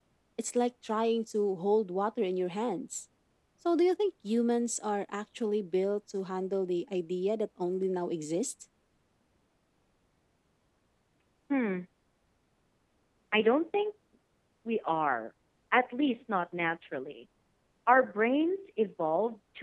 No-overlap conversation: Yes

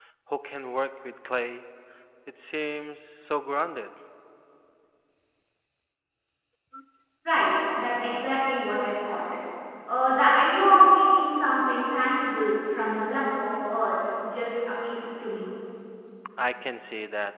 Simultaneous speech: No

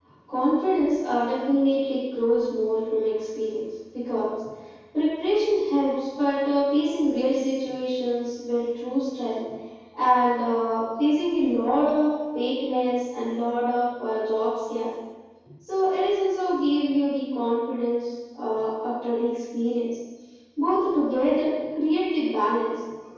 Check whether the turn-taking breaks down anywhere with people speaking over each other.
No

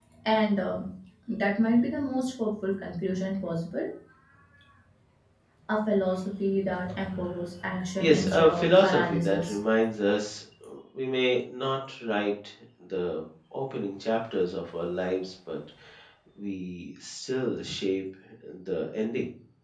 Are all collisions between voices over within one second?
No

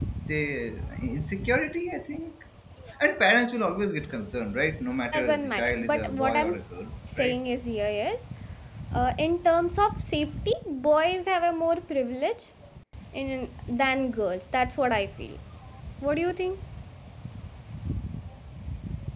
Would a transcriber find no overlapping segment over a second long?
No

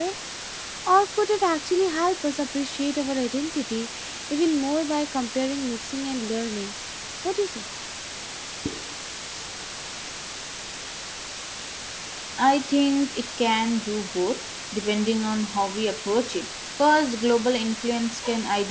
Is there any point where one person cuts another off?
No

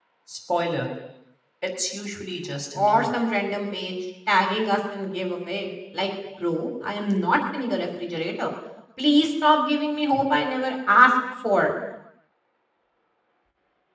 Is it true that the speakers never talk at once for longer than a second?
Yes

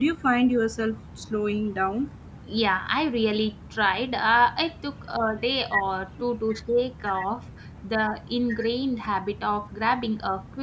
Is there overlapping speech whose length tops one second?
No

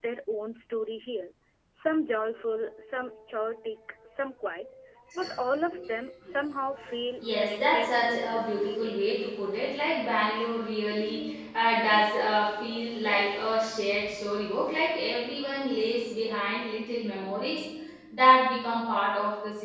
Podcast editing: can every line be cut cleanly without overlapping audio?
No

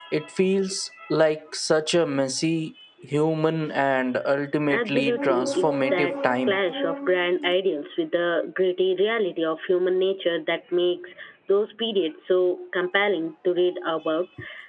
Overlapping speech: Yes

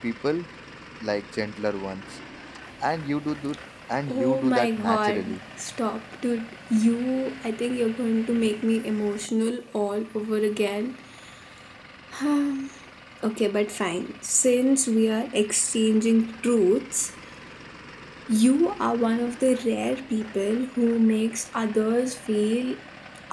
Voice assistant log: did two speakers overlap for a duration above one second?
Yes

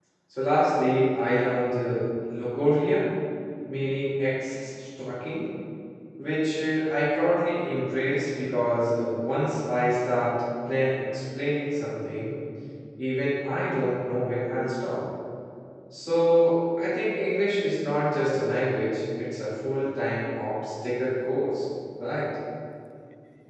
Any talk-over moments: No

